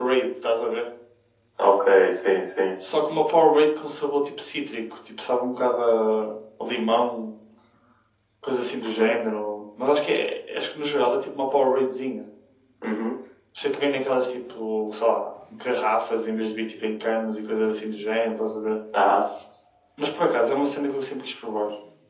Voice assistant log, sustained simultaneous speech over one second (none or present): none